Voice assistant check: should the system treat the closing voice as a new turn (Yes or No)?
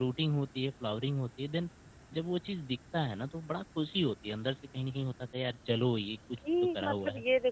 Yes